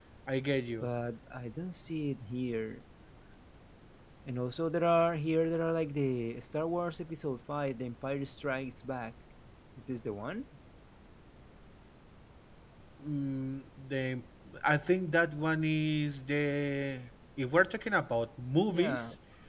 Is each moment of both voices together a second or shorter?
Yes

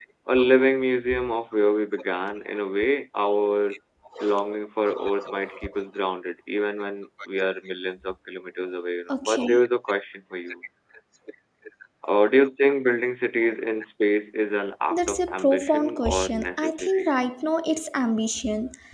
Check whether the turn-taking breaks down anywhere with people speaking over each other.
Yes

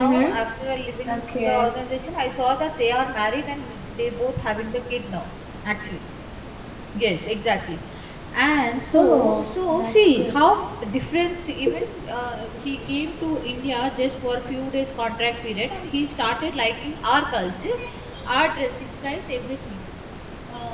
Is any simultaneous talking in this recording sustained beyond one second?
Yes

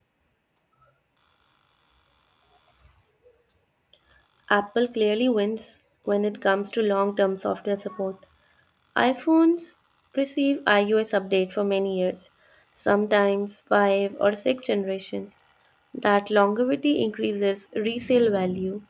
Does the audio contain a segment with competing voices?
No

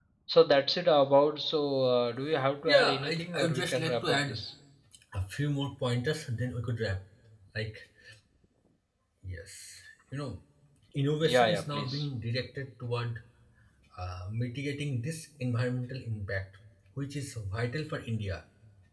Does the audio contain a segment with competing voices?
Yes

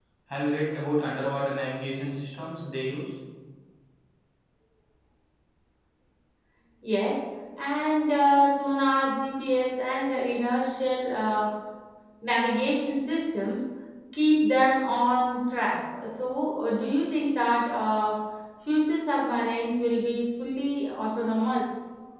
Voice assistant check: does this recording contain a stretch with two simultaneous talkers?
No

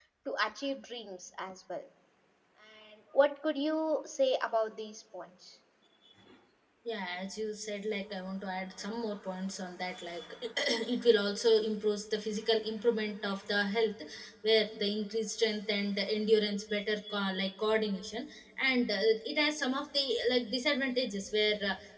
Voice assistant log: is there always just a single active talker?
Yes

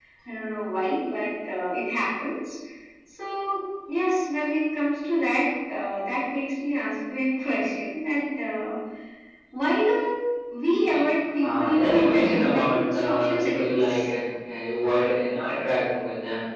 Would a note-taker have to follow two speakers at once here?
Yes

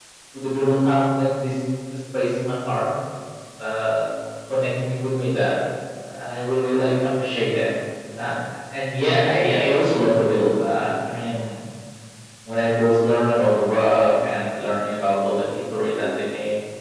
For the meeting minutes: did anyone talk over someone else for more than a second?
No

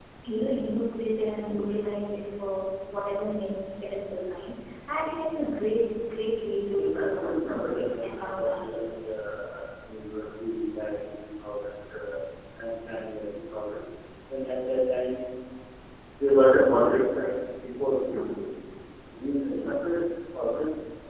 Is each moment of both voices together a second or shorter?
No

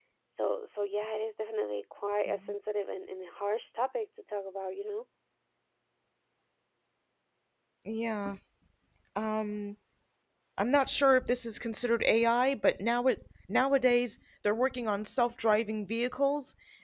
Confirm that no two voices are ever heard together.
Yes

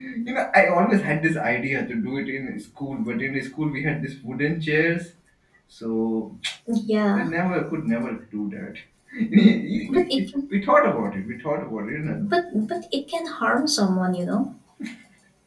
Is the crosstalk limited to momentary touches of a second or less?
Yes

